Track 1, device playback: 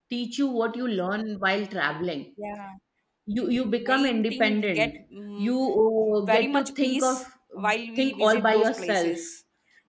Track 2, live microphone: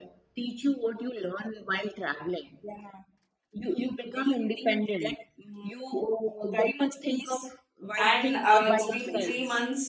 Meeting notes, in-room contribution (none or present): present